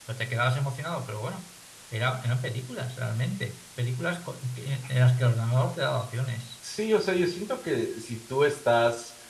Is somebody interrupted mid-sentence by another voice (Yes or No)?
No